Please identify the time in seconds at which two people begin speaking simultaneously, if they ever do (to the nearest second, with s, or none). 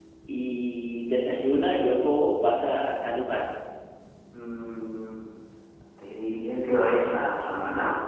none